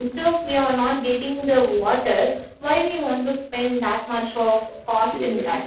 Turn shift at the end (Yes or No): Yes